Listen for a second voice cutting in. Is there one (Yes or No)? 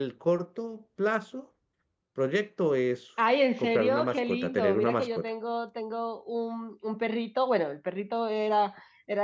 Yes